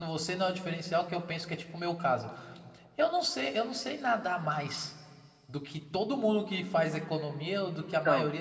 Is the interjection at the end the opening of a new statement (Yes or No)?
No